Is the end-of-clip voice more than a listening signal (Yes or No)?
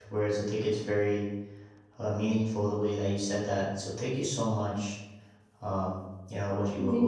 No